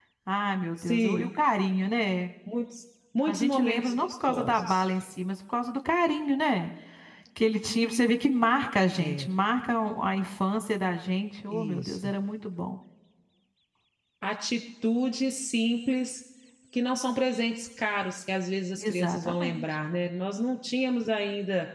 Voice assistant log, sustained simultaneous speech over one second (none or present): present